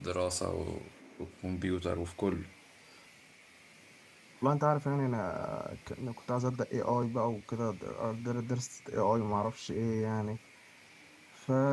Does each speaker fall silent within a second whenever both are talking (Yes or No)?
Yes